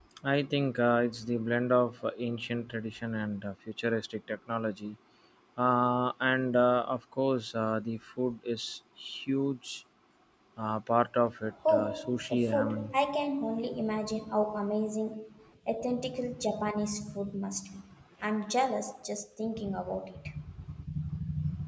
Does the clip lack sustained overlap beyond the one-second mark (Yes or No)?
No